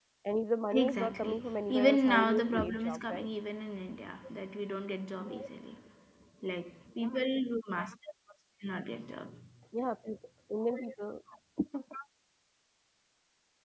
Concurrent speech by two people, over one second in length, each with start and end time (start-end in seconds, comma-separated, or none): 0.8-3.3